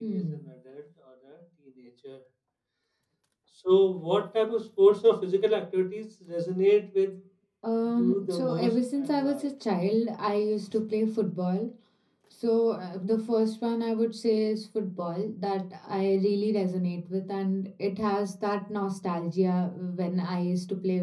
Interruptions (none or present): present